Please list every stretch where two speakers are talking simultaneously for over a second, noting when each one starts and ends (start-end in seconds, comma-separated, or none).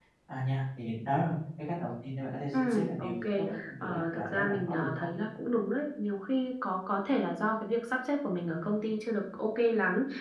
2.5-5.1